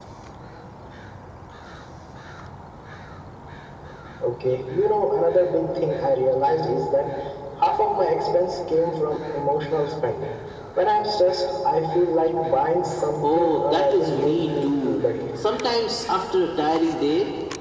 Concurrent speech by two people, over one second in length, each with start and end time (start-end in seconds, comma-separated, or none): 13.2-15.0